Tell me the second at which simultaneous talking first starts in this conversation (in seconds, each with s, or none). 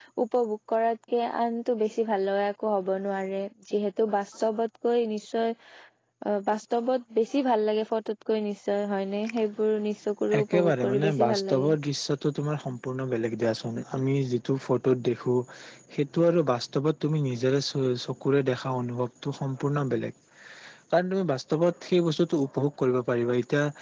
10.3 s